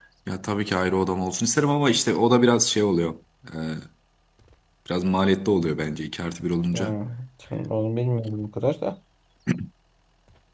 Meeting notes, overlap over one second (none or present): none